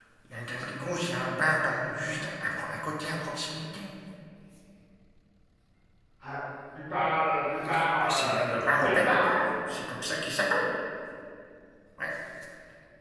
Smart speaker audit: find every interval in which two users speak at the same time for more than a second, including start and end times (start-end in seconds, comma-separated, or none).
8.0-9.4